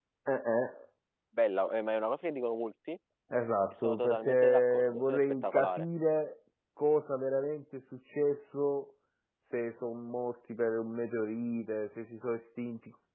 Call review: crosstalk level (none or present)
present